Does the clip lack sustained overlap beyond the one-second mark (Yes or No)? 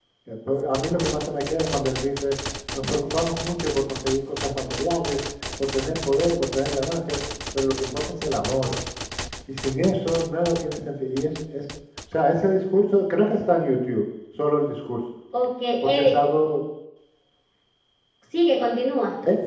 Yes